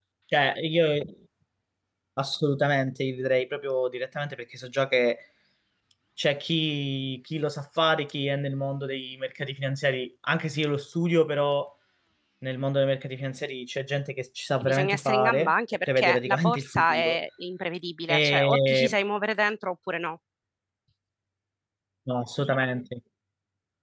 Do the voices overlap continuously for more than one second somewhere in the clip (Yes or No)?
Yes